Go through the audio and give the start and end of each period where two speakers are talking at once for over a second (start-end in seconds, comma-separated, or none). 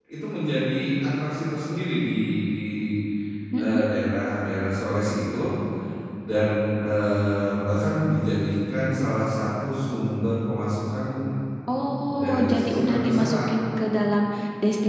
11.8-13.5